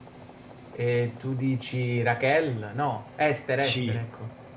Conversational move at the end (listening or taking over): taking over